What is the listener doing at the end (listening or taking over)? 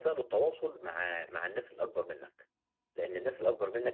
listening